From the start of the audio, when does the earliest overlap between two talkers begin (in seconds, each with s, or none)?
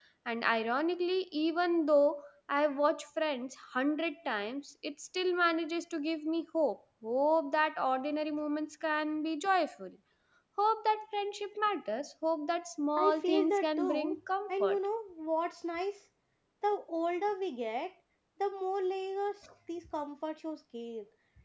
13.0 s